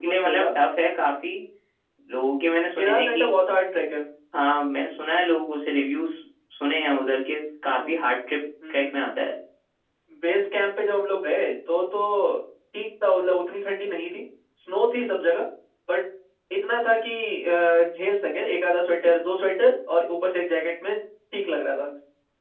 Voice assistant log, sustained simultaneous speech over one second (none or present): none